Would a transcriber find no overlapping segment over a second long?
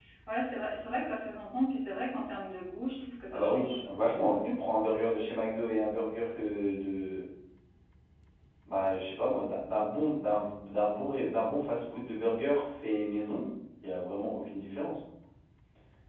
No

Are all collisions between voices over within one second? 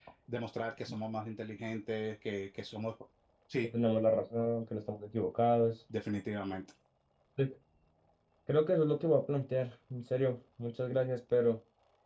Yes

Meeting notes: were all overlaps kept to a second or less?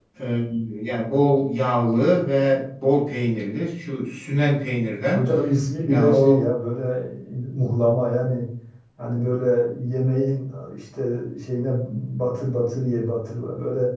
Yes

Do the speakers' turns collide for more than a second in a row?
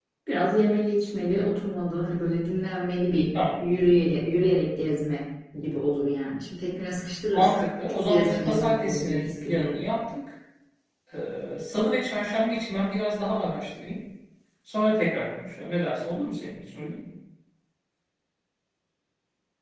Yes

